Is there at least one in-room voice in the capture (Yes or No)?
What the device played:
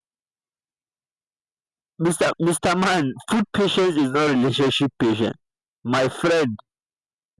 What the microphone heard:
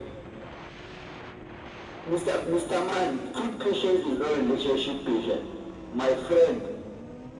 No